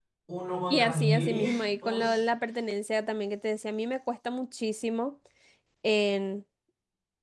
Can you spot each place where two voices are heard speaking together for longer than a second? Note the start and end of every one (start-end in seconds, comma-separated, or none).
0.7-1.9